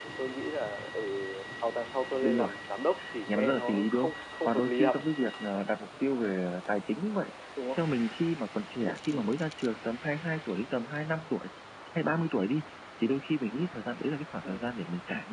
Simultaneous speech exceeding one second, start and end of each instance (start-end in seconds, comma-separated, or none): 3.3-5.0